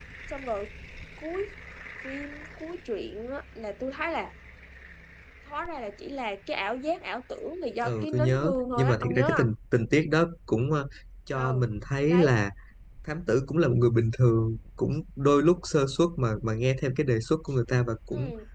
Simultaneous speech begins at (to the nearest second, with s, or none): 8 s